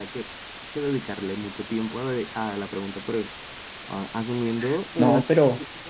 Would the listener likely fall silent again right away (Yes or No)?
Yes